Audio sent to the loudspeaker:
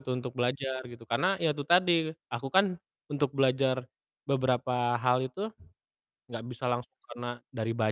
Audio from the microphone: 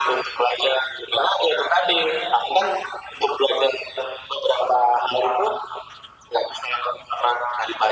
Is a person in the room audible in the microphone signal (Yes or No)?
No